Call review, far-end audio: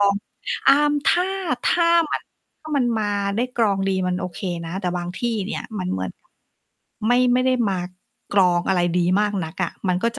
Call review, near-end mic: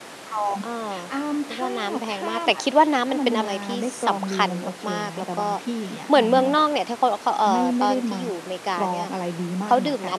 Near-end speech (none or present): present